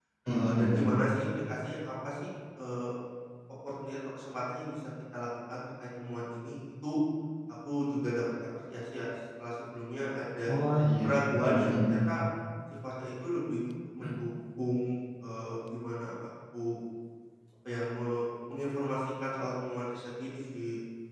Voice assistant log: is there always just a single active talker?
No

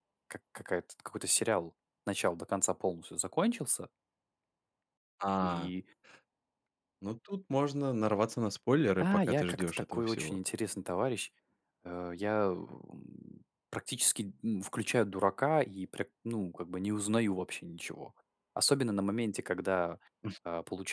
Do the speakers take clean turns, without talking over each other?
No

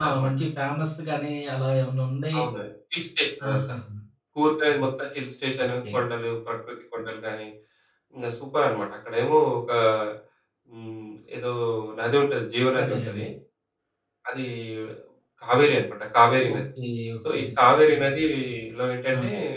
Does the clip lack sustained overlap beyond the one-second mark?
Yes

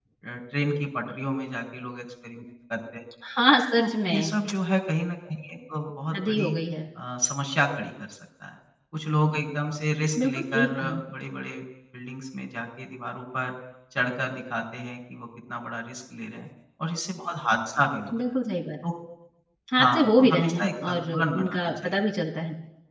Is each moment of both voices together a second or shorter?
No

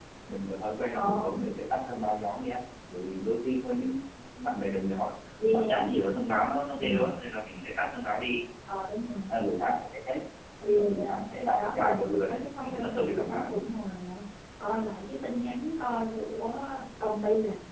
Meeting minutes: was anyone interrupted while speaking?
Yes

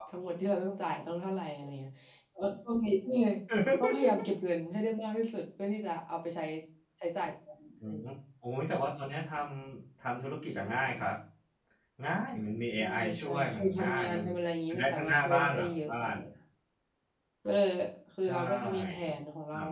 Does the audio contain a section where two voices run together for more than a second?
Yes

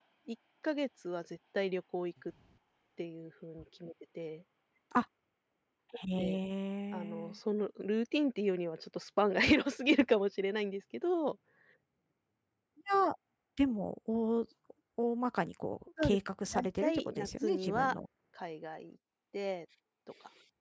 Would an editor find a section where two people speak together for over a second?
Yes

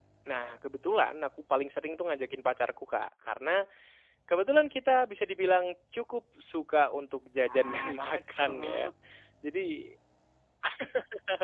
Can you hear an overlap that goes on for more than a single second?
Yes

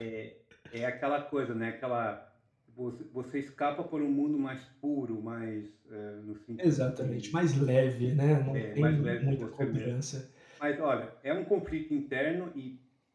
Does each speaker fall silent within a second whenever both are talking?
No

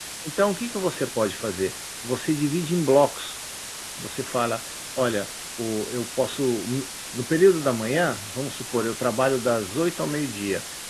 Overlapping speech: No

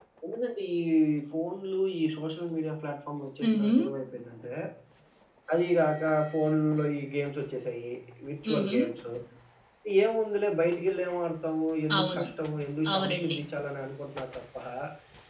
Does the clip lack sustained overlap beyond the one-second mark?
Yes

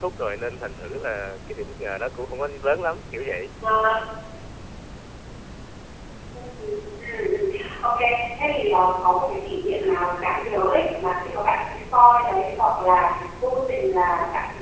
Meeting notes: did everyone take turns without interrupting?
Yes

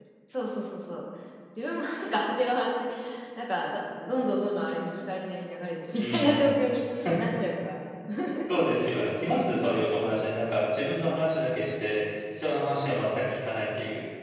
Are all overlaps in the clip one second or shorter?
Yes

